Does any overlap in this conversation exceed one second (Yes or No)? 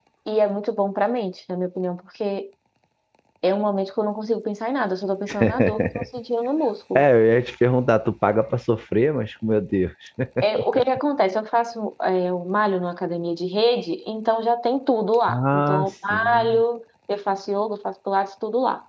Yes